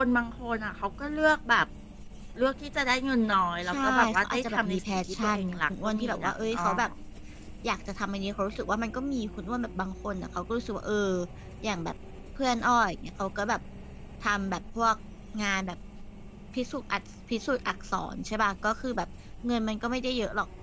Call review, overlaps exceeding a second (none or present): present